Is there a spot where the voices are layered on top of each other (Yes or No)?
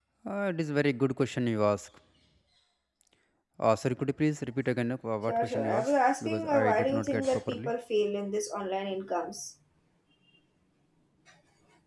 Yes